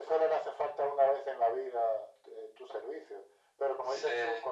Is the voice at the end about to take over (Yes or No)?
No